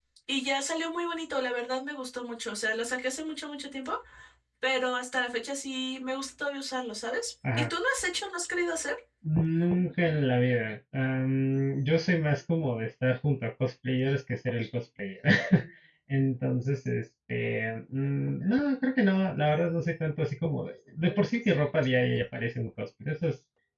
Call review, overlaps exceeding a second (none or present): none